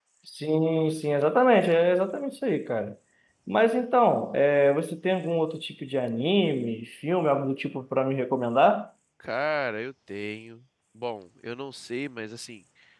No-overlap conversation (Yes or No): Yes